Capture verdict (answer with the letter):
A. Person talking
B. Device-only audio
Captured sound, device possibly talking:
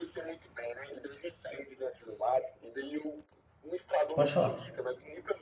A